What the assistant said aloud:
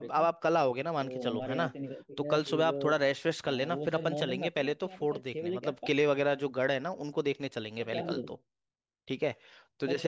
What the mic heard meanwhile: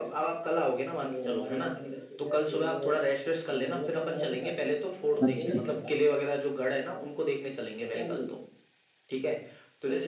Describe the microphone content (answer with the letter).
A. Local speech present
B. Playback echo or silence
A